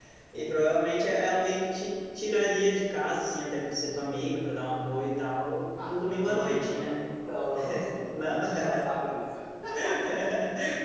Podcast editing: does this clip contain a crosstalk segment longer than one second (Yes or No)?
Yes